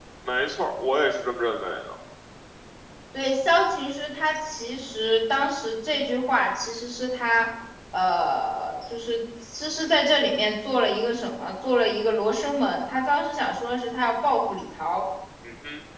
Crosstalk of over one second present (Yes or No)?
No